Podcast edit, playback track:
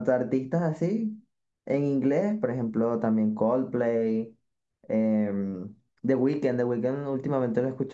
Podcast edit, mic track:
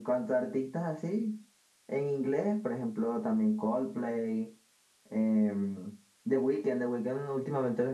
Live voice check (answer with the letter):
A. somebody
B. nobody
B